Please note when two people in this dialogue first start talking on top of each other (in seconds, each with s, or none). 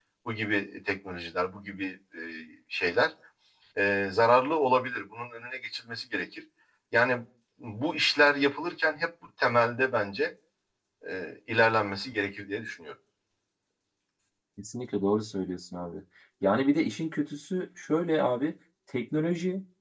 none